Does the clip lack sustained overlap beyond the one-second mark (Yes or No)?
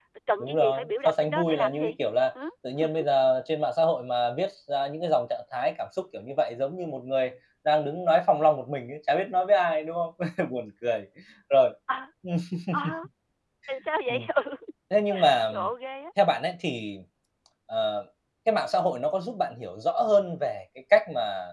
No